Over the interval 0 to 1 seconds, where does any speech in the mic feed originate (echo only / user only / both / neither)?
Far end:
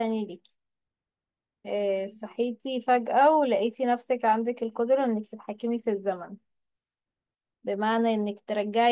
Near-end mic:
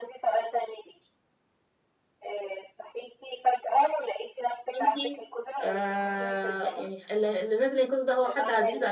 echo only